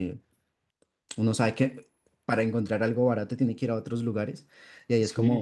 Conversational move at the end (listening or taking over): taking over